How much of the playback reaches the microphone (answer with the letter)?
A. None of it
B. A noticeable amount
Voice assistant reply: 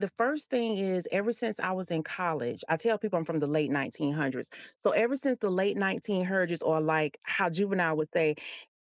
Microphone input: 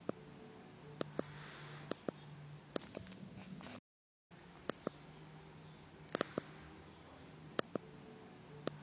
A